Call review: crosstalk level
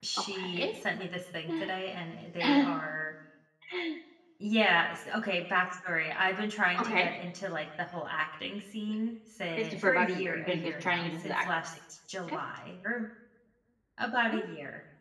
present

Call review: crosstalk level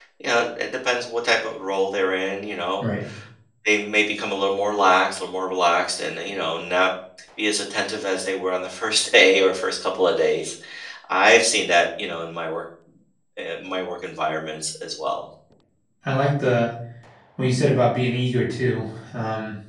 none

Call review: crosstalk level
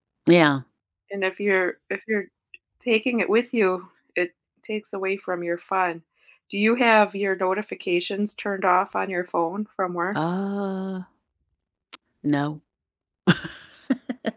none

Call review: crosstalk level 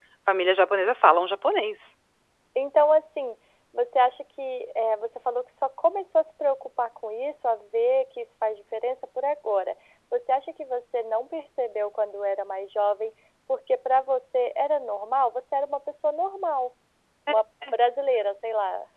none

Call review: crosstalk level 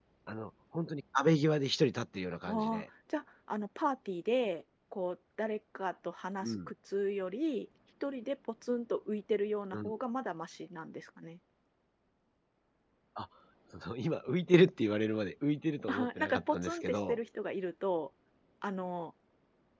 present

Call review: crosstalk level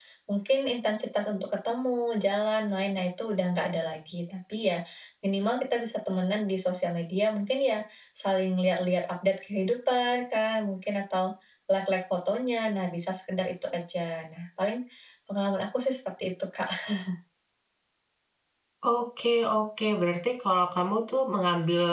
none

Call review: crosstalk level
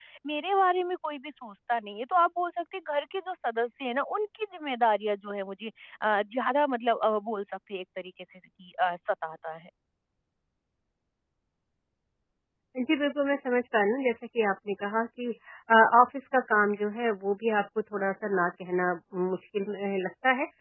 none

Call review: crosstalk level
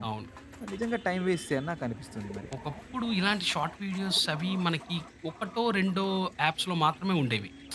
none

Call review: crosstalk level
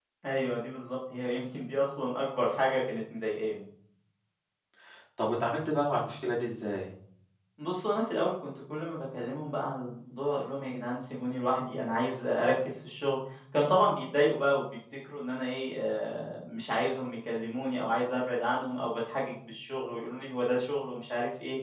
none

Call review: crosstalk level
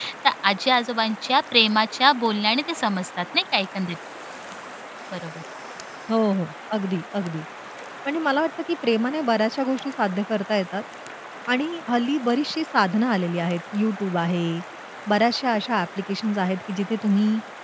none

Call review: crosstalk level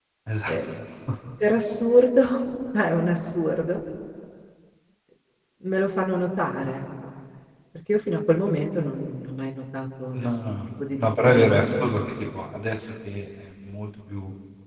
present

